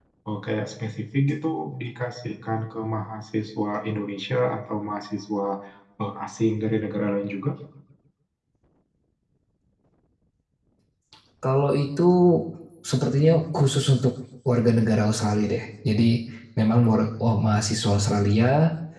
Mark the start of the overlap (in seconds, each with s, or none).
none